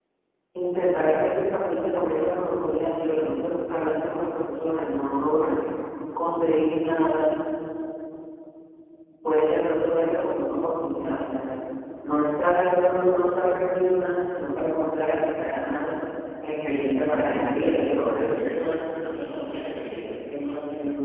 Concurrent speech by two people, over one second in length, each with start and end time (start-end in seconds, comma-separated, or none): 17.0-18.3